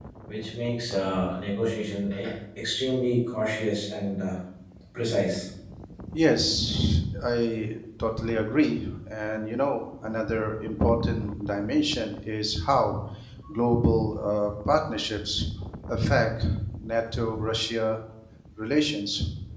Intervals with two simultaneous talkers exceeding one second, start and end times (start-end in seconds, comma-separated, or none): none